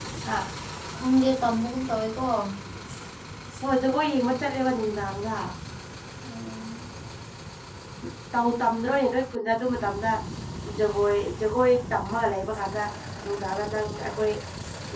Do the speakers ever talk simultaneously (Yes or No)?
No